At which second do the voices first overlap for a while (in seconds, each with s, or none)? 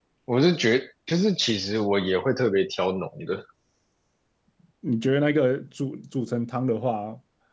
none